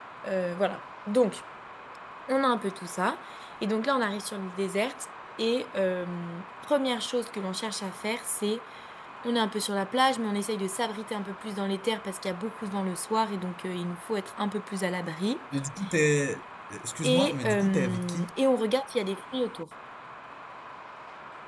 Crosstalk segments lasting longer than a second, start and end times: 17.0-18.3

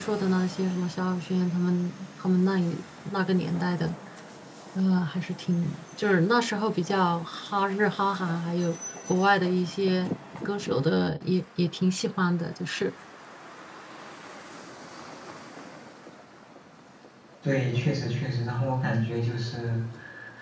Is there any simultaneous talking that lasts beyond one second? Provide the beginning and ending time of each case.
none

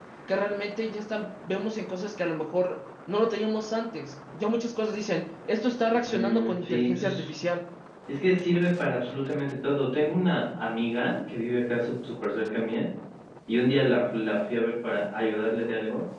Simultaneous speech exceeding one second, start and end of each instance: 5.9-7.3

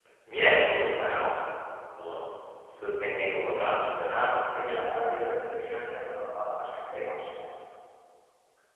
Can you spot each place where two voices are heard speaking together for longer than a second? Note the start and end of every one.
3.6-4.9

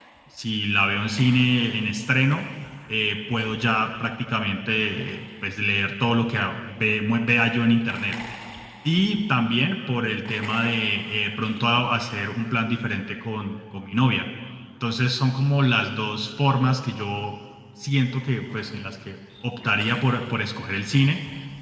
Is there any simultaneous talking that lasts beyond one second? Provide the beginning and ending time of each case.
none

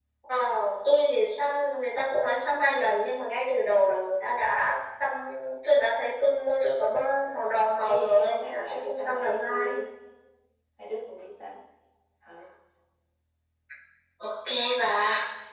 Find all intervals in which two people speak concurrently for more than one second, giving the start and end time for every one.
7.8-9.7

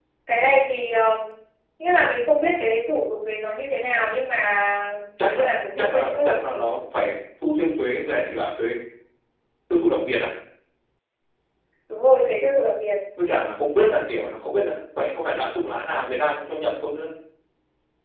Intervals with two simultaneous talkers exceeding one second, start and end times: 5.2-6.6

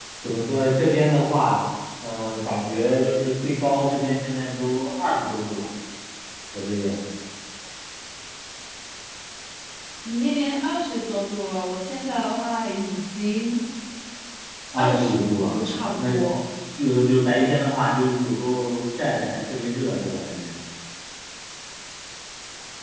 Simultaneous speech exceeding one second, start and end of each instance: 14.8-16.1

